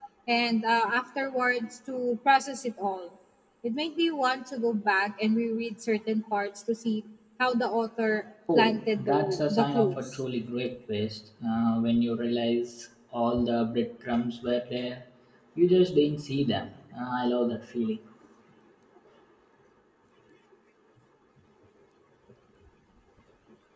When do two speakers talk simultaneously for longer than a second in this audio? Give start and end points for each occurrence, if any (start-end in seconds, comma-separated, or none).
8.6-10.1